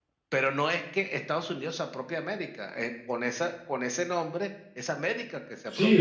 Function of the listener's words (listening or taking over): taking over